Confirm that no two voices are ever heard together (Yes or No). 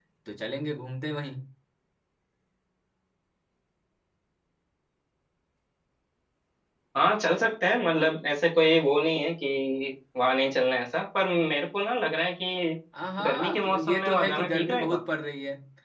No